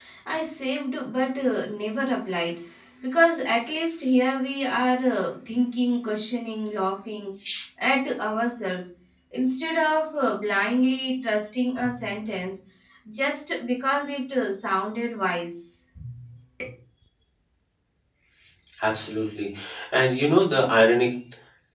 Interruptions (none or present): none